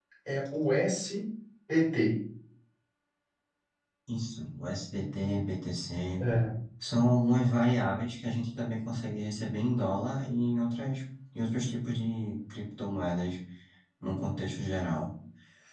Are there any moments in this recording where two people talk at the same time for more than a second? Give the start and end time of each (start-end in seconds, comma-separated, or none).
none